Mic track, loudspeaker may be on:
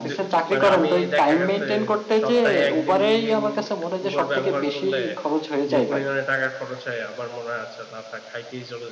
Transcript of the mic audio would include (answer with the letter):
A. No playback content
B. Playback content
B